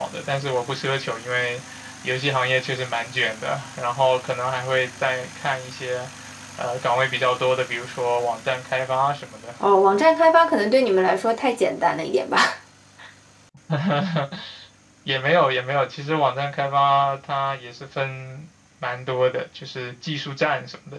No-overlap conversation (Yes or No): Yes